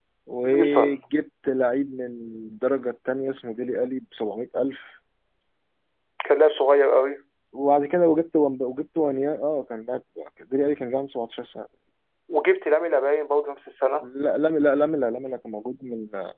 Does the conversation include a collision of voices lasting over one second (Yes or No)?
No